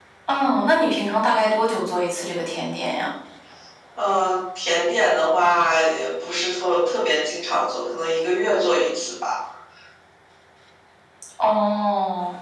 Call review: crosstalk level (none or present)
none